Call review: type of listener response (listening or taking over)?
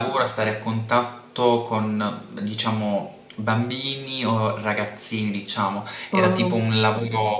listening